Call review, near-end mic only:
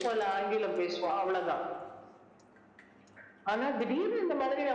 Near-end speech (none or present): none